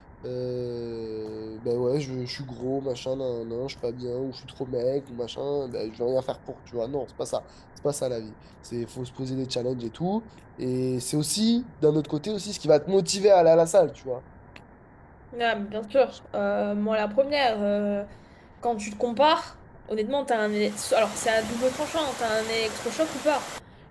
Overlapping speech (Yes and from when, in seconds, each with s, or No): No